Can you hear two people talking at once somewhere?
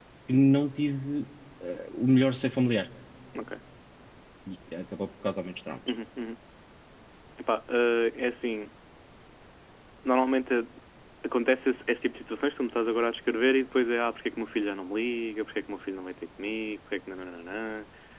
No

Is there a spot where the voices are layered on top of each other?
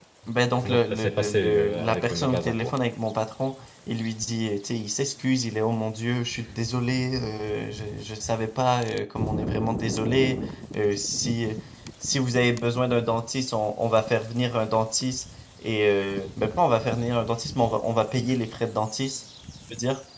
Yes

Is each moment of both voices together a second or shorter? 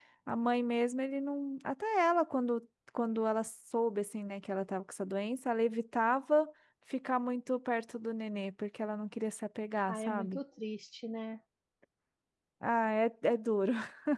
Yes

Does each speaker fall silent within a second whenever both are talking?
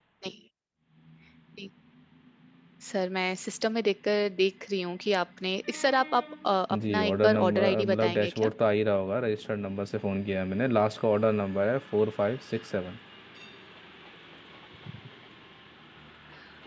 No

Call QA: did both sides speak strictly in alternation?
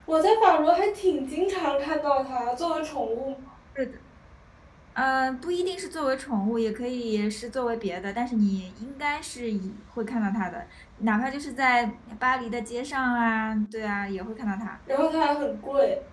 Yes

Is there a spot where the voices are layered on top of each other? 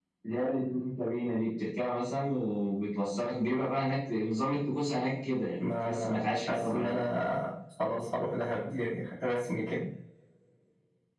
Yes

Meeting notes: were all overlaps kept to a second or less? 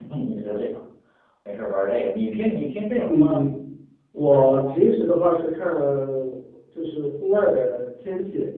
Yes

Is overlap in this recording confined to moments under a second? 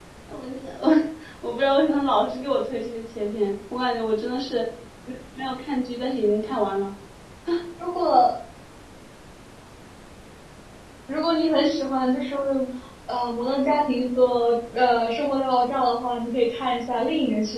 Yes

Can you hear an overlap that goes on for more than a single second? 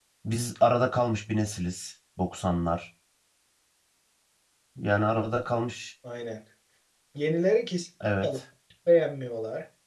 No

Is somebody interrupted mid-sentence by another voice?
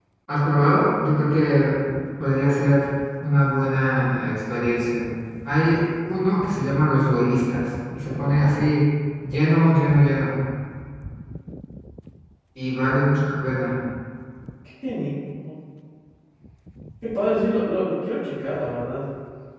No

